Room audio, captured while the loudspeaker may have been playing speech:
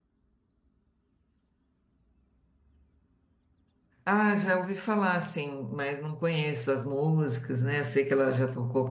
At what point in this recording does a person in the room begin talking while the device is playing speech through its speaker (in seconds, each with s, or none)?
4.0 s